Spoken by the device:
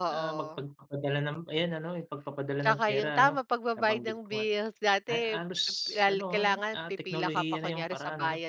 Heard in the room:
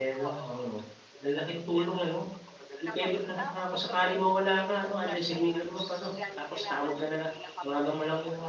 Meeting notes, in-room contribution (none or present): present